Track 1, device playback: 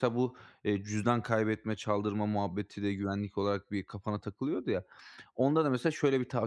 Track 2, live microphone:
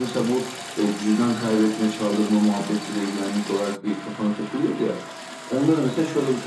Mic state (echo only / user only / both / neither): echo only